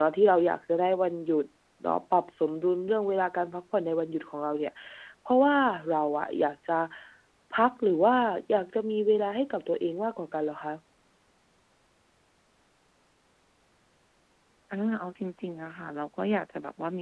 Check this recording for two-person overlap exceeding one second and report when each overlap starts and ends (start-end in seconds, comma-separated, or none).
none